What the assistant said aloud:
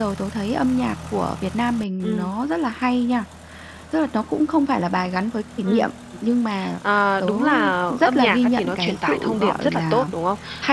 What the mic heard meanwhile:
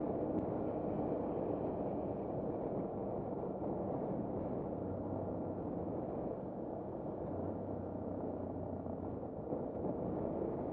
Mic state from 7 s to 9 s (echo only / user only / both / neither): neither